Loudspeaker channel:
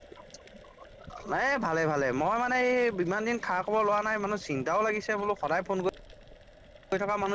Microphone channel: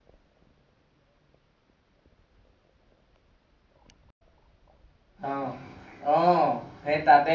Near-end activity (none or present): present